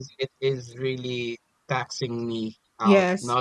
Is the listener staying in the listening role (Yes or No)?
Yes